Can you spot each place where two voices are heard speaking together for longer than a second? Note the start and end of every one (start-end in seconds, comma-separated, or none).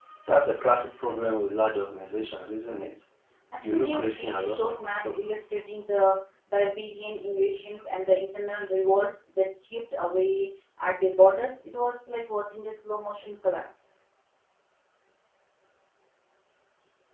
3.6-5.2